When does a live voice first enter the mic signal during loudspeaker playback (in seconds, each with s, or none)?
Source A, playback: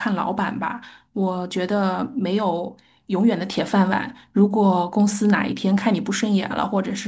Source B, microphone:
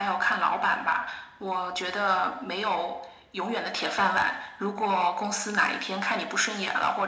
none